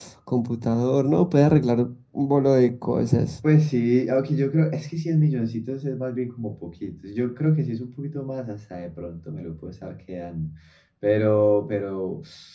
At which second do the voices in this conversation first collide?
none

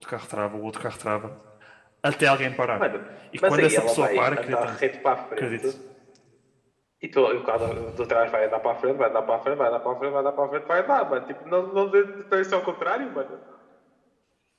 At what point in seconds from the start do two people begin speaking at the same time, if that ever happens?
3.5 s

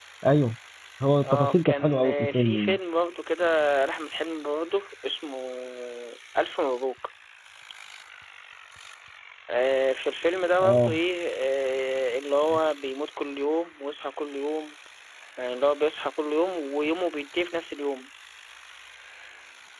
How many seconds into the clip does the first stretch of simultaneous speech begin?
1.3 s

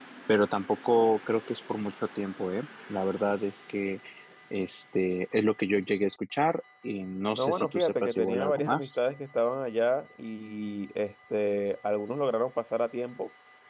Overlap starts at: 7.3 s

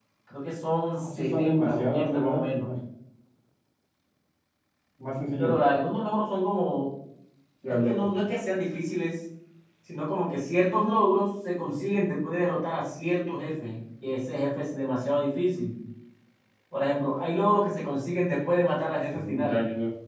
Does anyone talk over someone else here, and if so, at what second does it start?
0.9 s

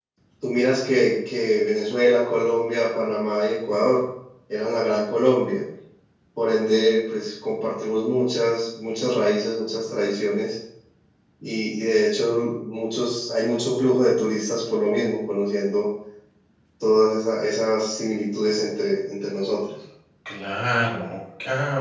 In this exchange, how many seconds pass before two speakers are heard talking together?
none

